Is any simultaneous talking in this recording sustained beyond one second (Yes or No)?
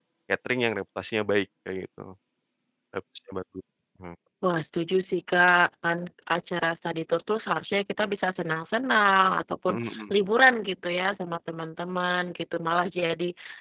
No